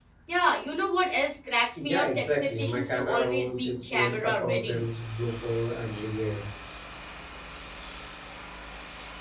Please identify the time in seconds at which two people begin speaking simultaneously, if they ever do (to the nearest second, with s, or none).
2 s